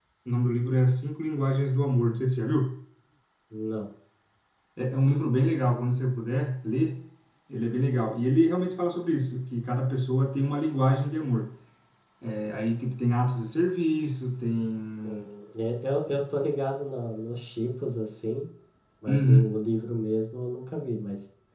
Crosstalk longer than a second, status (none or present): none